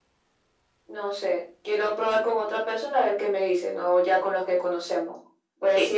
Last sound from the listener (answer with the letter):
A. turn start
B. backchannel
B